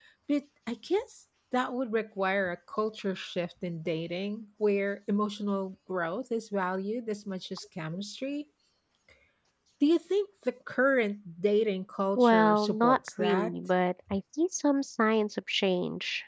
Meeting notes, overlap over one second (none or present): present